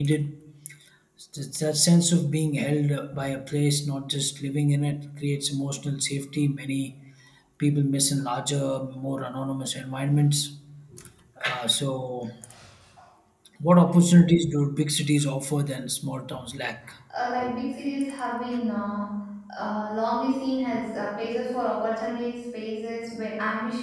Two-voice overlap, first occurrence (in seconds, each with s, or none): none